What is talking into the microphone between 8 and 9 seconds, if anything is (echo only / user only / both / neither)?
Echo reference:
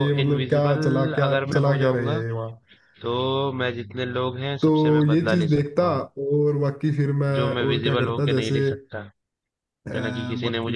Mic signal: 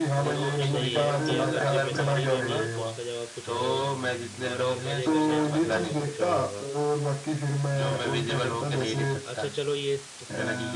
echo only